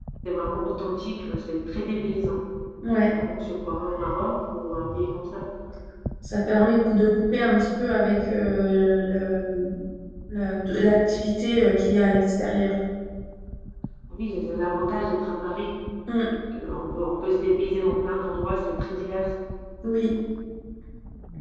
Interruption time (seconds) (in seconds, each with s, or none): none